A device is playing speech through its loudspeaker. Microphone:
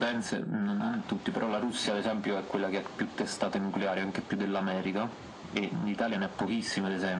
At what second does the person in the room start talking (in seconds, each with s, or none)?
0.7 s